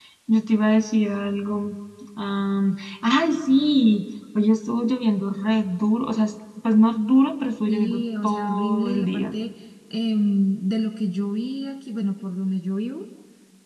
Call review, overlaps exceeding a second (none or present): present